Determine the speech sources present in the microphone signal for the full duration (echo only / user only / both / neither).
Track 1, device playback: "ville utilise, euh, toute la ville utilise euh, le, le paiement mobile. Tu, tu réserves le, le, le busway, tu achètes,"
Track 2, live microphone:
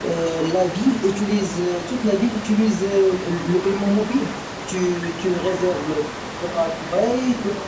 echo only